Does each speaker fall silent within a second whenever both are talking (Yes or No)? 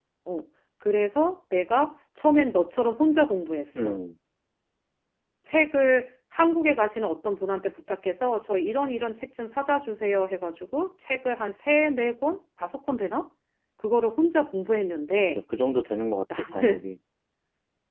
Yes